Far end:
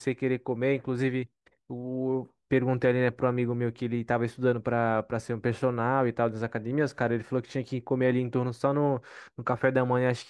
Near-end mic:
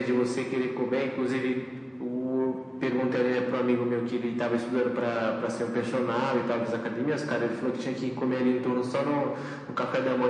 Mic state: echo only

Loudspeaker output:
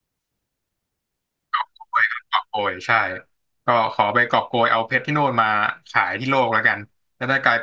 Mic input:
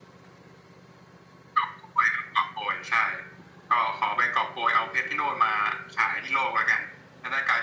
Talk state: echo only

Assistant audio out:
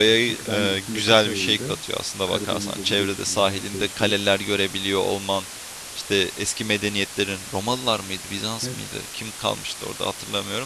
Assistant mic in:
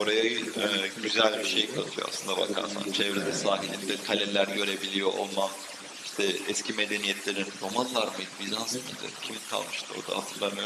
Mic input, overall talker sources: both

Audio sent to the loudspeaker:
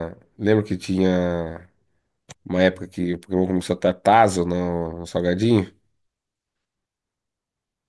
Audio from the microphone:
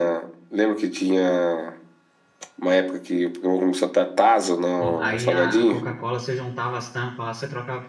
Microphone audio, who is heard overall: both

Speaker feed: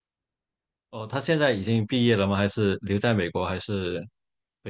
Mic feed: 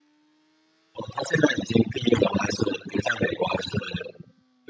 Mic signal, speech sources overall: echo only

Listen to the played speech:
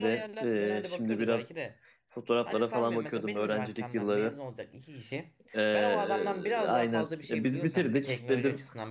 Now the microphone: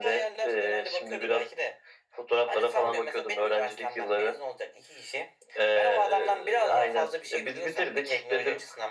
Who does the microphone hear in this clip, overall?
echo only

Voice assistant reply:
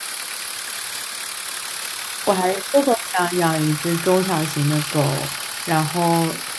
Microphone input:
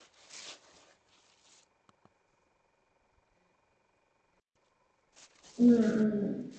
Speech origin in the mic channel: user only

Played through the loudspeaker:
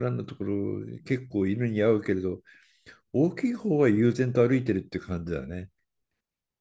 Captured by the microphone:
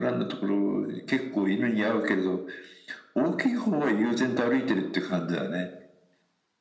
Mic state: echo only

